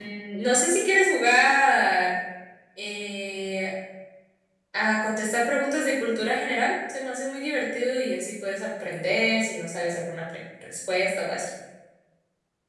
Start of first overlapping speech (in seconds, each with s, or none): none